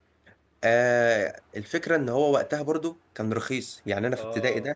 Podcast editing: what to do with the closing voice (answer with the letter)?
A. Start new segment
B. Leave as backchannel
B